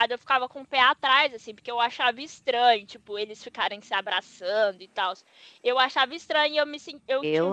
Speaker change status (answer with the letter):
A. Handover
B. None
B